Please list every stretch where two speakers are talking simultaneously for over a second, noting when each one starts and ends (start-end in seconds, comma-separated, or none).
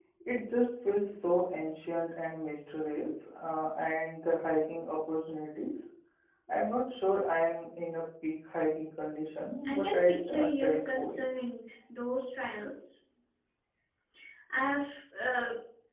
9.7-11.2